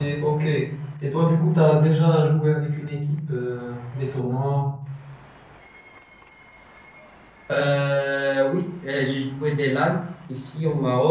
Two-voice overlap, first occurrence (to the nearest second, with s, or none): none